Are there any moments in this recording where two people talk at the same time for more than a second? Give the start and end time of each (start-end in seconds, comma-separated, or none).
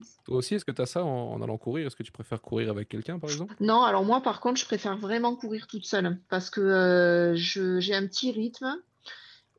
none